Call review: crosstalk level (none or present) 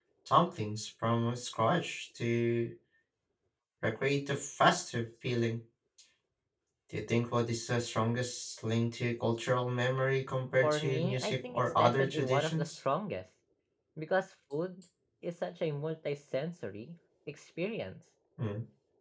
present